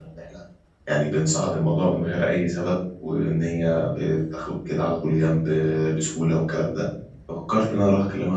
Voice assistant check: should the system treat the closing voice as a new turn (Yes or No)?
No